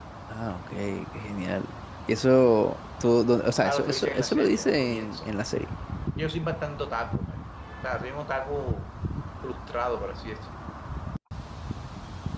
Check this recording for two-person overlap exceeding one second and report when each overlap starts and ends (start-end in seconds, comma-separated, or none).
3.6-5.3